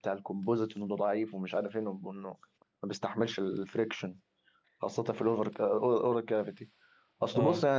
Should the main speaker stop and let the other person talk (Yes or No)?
No